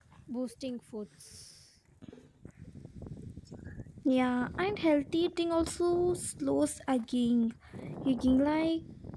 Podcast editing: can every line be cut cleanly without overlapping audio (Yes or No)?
Yes